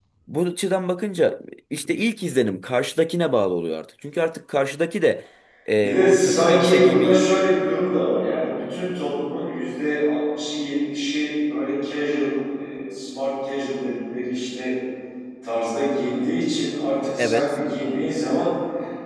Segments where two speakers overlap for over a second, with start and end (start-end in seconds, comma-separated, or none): 5.7-7.2